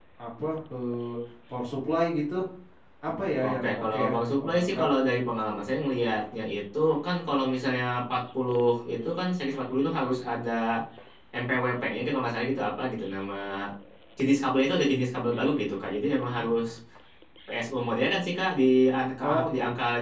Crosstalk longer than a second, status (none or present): present